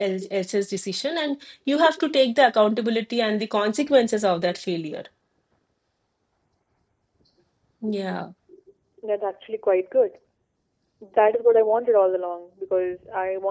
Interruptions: none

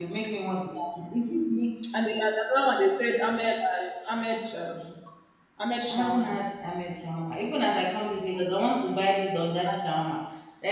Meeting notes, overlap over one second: none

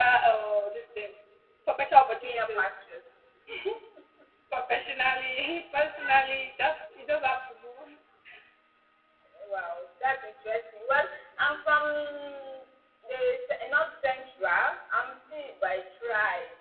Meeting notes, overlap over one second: none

